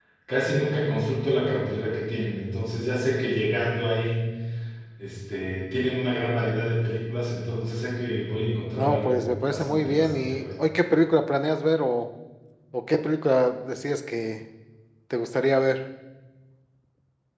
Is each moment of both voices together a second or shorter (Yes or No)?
No